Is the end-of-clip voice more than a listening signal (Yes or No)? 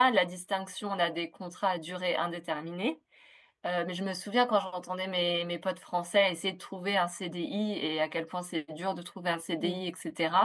No